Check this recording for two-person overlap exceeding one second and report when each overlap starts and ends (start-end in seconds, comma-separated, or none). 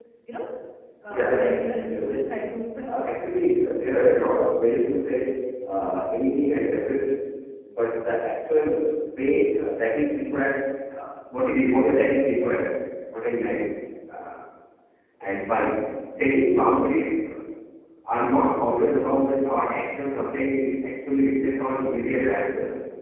1.1-2.3